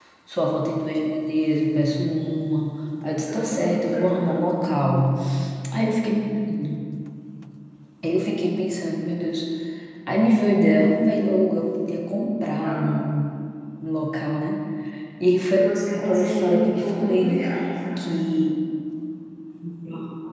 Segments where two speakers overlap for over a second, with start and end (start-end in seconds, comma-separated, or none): 3.3-4.8, 15.9-17.4